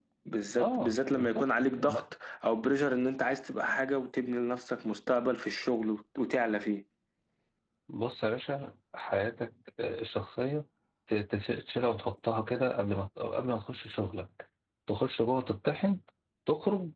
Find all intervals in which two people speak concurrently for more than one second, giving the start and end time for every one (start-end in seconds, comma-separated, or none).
0.6-2.0